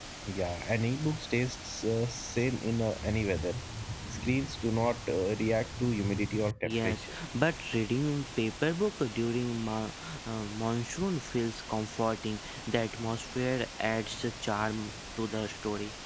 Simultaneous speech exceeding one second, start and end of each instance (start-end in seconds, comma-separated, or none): none